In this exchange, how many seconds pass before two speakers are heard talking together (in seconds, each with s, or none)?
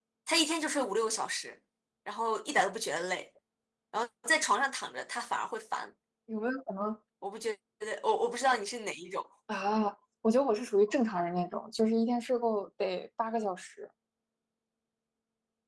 none